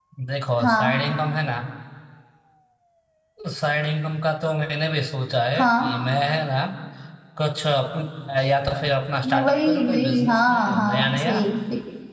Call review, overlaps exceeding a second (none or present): present